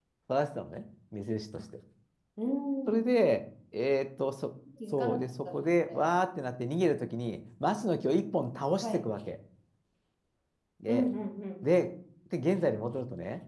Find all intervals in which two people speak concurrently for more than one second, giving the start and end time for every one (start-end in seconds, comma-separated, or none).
4.9-6.1